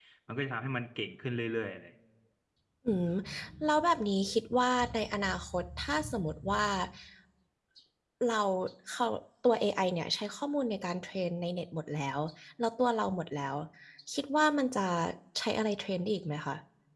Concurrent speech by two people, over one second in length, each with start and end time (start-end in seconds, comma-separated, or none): none